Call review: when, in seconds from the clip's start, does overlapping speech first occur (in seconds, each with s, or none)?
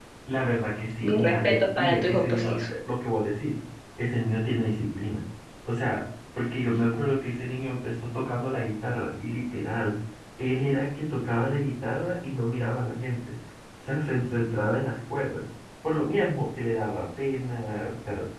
1.0 s